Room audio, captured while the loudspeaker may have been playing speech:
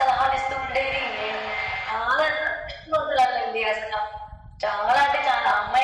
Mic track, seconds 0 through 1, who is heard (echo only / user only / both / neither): echo only